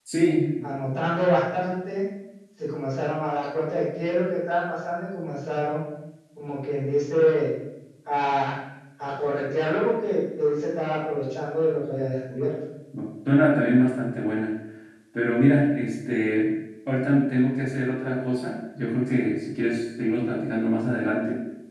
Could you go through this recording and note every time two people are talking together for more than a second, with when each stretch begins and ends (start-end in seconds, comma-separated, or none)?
none